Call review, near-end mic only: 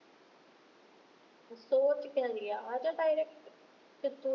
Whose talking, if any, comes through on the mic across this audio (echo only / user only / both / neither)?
user only